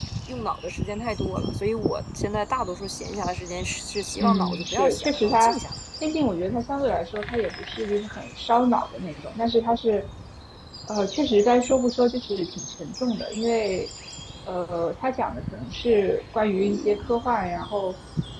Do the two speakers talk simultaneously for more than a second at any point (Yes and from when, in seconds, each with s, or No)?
Yes, from 4.2 s